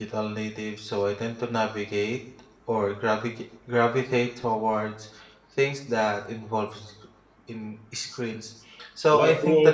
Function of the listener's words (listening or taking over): listening